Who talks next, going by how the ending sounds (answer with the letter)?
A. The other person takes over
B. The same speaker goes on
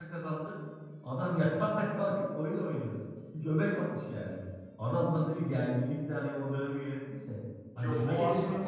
A